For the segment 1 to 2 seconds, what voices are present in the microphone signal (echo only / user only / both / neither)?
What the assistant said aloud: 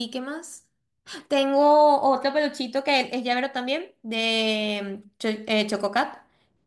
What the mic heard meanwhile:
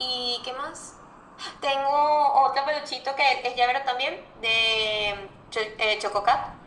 echo only